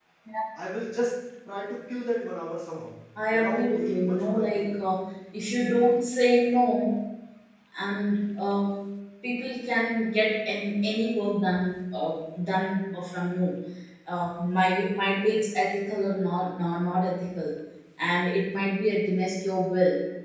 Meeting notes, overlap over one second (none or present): present